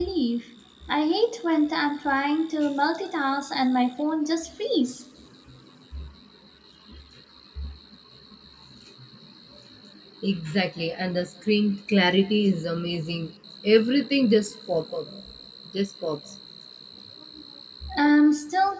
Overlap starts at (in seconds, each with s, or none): none